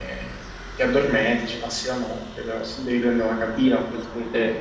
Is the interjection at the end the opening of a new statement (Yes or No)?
No